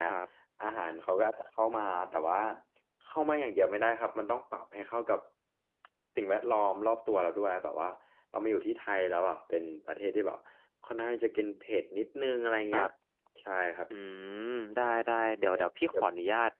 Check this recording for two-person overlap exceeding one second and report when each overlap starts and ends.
none

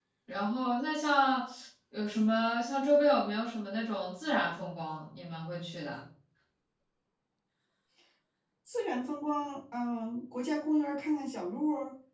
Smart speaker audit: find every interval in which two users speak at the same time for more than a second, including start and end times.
none

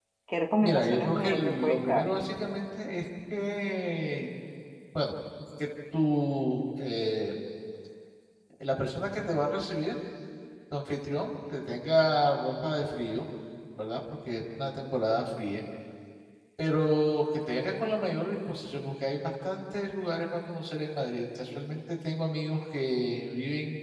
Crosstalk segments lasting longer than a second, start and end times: 0.6-2.1

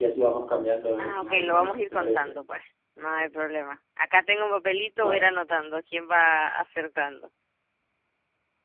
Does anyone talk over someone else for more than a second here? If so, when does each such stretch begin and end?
1.0-2.3

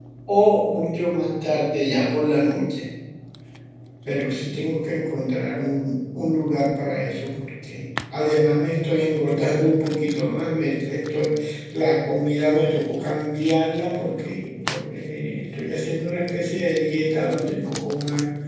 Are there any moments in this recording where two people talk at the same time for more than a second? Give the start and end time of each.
none

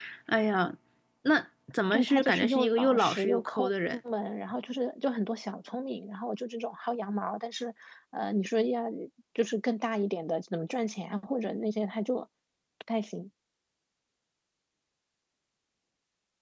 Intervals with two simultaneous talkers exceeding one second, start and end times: 1.9-4.0

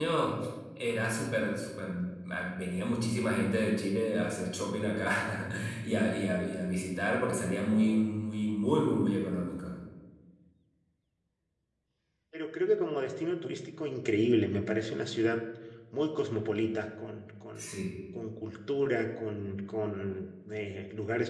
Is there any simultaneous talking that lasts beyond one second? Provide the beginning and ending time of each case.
none

